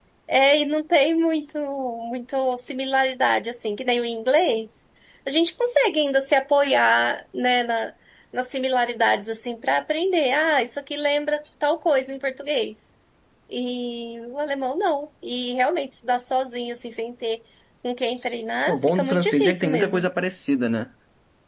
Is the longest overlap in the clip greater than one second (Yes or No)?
Yes